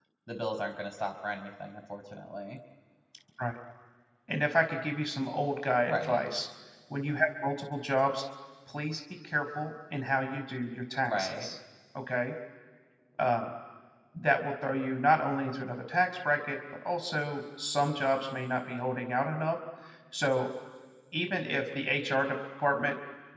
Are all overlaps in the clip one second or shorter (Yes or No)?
Yes